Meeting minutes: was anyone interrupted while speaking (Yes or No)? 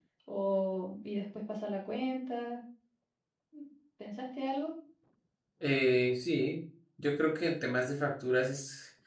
No